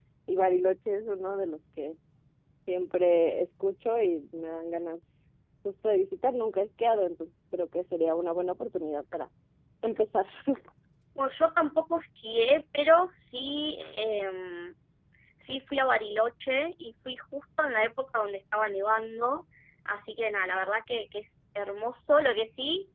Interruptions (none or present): none